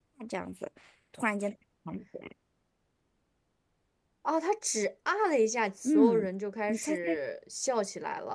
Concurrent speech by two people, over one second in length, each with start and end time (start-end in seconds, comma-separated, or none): none